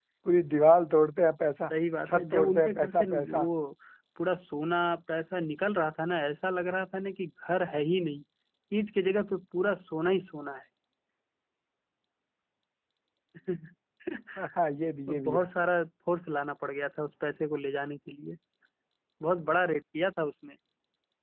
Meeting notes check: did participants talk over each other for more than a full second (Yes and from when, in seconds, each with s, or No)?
Yes, from 2.0 s